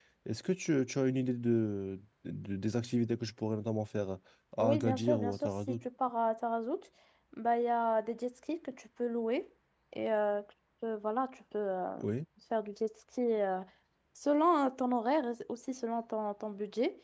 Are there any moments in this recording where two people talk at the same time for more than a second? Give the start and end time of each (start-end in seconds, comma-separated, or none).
4.6-5.8